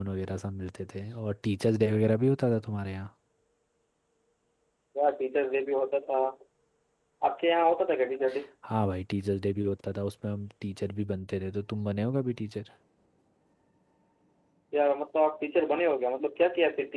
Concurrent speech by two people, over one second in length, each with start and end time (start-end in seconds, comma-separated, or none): none